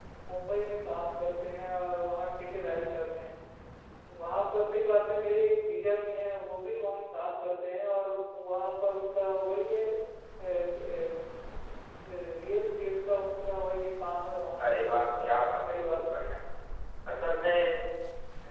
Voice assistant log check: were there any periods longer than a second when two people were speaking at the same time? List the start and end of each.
14.7-16.2

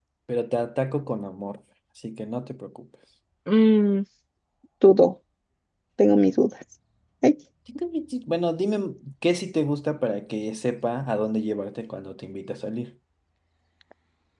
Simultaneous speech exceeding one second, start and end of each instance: none

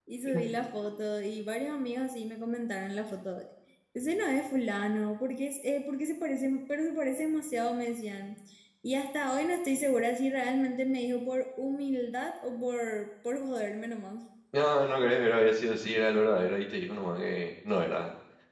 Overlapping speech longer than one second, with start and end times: none

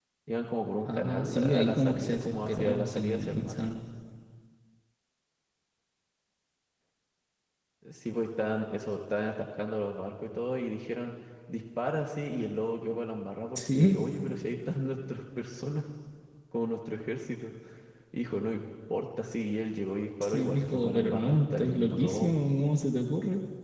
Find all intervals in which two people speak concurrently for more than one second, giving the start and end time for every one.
0.9-3.6, 20.2-22.3

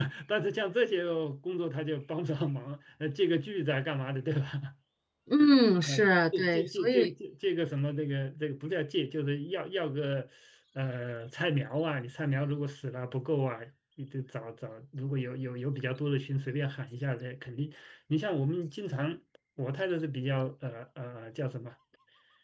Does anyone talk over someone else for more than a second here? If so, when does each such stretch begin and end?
5.8-7.1

